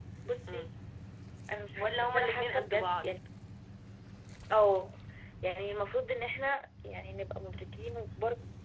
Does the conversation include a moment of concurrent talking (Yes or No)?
Yes